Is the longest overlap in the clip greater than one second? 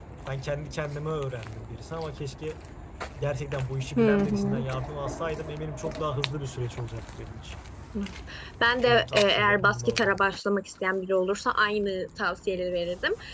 Yes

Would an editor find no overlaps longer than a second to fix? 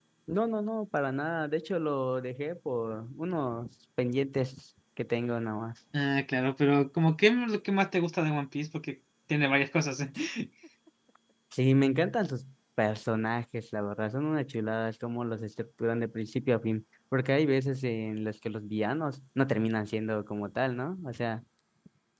Yes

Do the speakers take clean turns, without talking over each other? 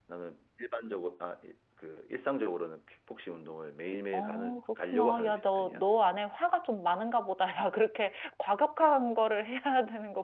No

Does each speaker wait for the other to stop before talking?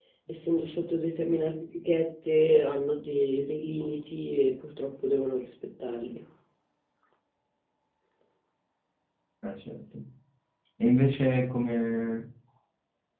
Yes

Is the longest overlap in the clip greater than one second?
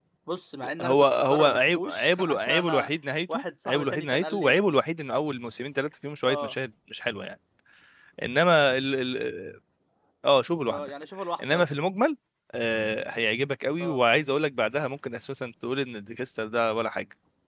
Yes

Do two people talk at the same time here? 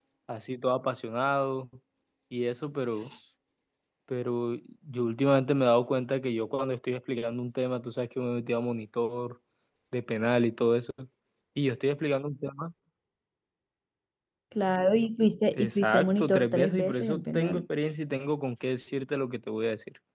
Yes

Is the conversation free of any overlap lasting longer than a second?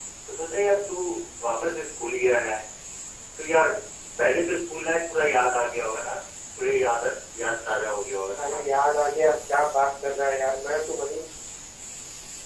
Yes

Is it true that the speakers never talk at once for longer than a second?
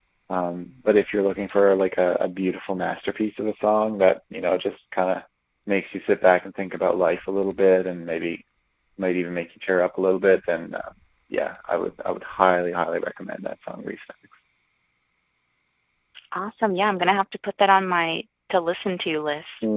Yes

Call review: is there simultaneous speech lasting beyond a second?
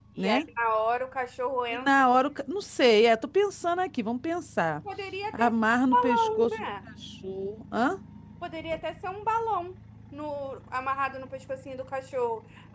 Yes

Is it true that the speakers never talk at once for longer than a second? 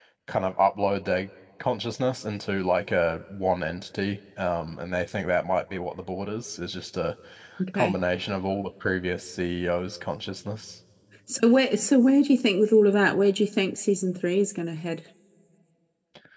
Yes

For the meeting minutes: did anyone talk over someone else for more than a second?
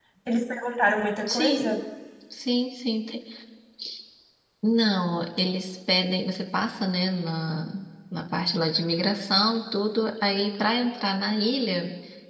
No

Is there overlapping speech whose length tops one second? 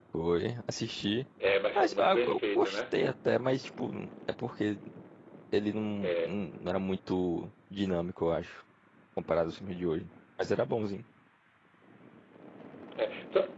Yes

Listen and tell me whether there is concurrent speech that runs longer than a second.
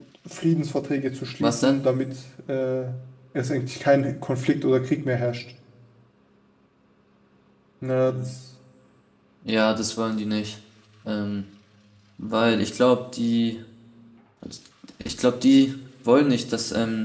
No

